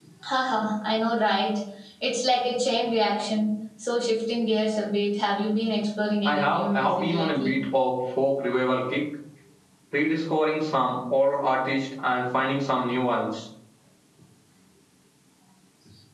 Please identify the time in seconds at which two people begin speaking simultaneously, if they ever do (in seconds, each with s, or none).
6.2 s